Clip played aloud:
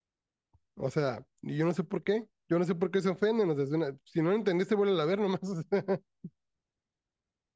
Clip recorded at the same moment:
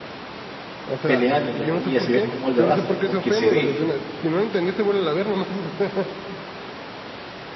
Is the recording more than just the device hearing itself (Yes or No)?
Yes